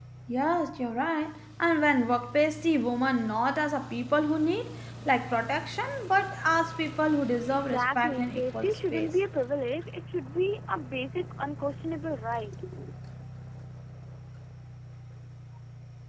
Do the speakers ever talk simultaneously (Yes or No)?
Yes